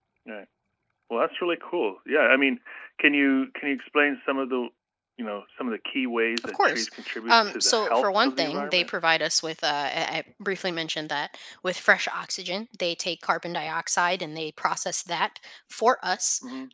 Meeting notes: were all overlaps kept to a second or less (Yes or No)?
No